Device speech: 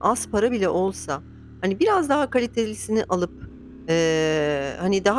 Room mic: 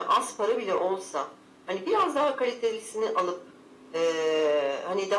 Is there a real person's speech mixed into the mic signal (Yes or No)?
No